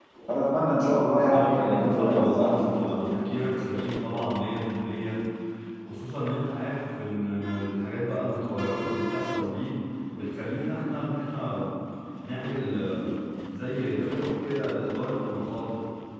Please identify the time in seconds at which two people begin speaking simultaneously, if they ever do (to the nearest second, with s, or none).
1 s